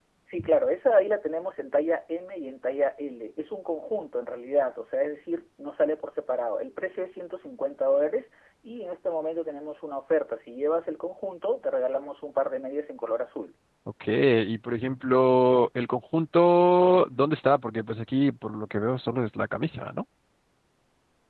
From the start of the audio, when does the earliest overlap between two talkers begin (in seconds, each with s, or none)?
none